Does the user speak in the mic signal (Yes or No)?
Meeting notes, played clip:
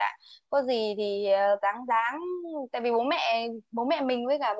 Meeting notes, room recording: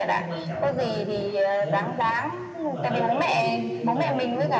Yes